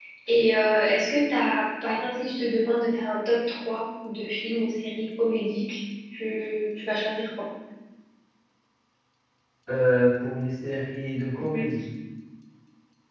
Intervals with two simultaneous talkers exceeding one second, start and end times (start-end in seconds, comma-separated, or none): none